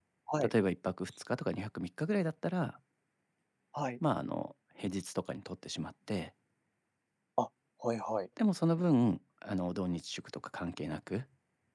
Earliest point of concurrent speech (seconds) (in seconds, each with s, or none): none